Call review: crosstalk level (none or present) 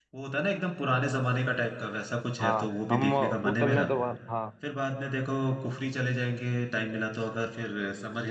present